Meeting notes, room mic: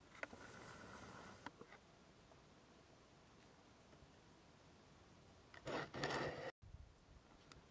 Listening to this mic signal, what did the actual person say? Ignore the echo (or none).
none